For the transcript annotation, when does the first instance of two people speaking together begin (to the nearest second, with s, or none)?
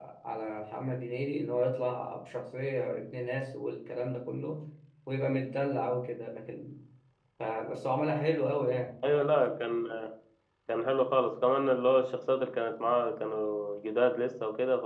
none